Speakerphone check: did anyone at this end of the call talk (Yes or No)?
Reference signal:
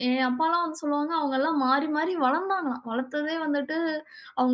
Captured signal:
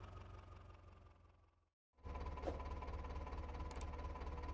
No